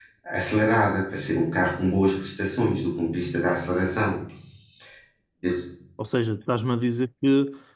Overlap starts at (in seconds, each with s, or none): none